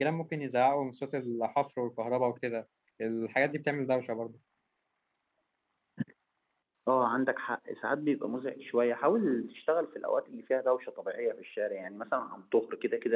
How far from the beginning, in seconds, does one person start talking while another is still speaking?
none

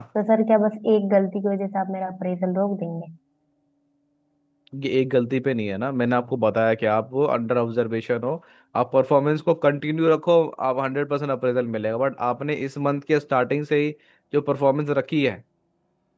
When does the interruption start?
none

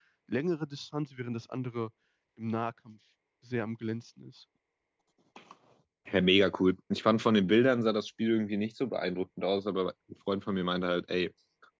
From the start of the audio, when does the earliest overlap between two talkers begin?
none

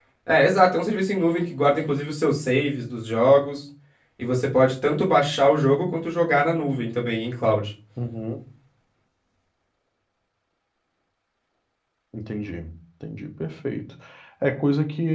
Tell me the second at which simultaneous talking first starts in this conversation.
none

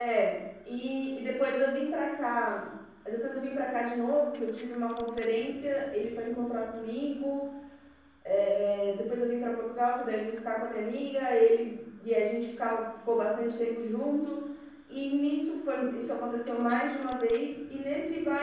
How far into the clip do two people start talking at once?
none

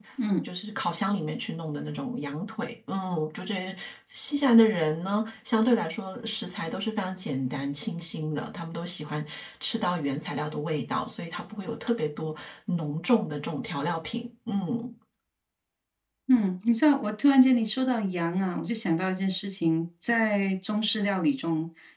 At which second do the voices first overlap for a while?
none

